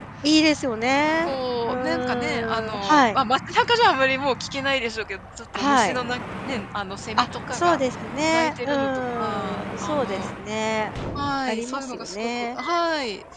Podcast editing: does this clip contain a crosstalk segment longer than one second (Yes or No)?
Yes